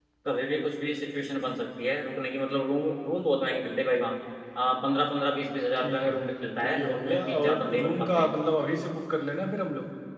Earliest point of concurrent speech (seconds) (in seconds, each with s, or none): 5.8 s